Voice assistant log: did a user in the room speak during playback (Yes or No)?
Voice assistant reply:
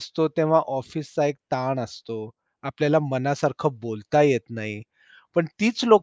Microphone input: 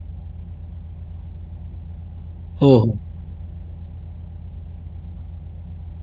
Yes